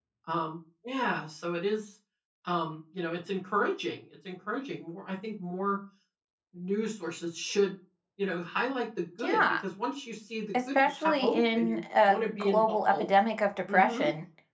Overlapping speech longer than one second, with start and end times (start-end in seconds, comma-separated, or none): 10.5-13.1